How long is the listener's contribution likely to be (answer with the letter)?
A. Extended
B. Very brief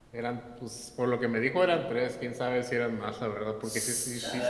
B